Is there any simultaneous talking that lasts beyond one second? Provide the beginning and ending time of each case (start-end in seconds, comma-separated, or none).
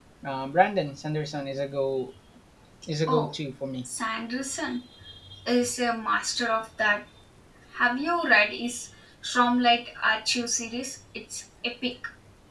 none